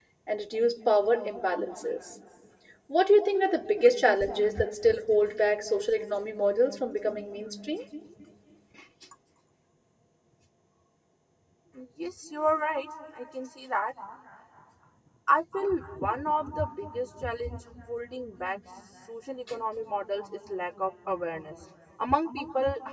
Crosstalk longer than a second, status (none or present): none